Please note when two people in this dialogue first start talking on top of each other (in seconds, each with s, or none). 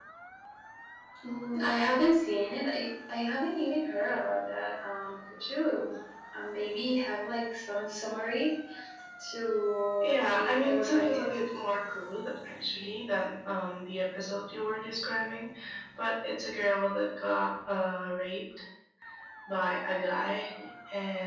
10.0 s